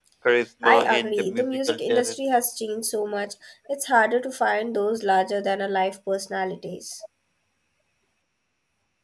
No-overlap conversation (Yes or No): No